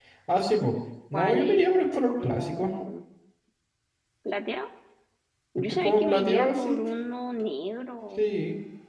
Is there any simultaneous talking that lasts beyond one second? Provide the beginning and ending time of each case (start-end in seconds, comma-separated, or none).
1.1-2.7, 5.6-6.8